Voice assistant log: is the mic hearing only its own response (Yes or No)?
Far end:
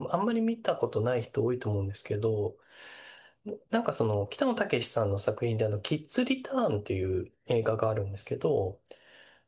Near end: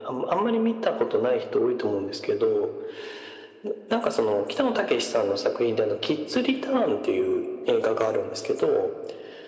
Yes